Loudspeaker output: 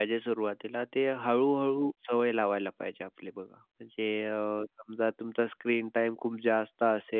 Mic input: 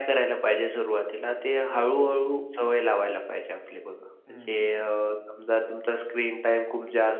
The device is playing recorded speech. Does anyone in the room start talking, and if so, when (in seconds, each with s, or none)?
4.3 s